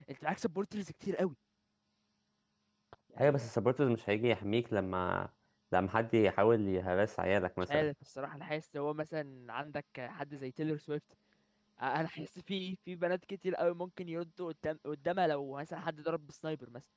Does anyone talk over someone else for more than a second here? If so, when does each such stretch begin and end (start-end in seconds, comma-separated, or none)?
none